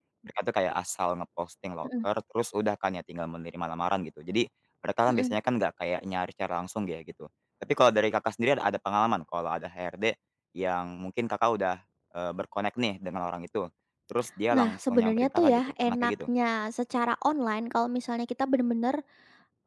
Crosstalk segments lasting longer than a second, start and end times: 14.5-16.1

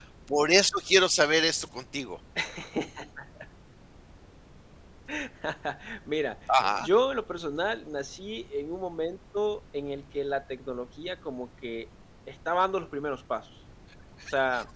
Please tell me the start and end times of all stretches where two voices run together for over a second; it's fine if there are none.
none

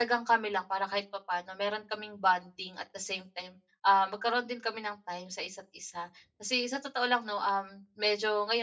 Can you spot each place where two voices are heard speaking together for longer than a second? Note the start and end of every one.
none

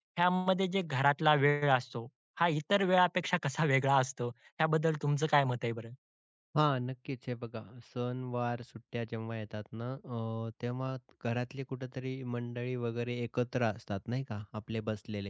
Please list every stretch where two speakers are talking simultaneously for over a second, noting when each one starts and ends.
none

